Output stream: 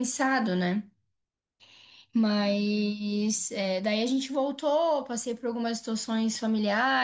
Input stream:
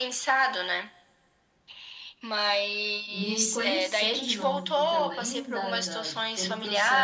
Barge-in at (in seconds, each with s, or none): 3.1 s